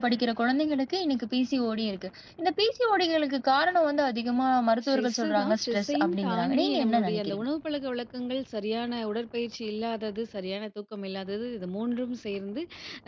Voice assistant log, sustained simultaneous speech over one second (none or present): present